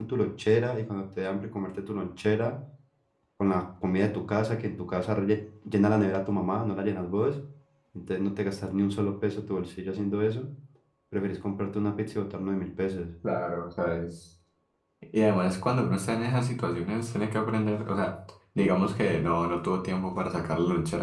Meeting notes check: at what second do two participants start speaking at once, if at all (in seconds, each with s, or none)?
none